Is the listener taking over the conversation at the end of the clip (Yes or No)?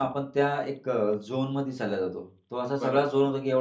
No